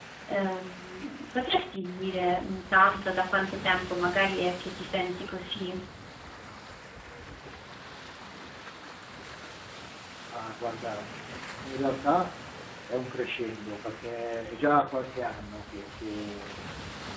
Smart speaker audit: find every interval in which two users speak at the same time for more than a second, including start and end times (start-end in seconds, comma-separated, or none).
none